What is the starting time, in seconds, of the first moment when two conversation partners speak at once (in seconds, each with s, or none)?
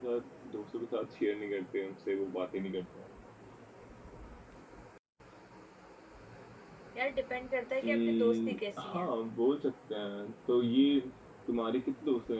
7.8 s